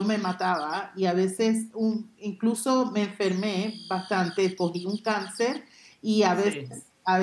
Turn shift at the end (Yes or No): No